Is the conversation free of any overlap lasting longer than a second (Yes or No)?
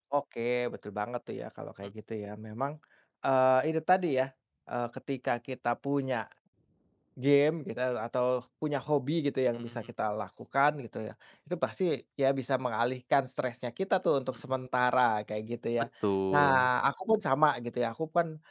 Yes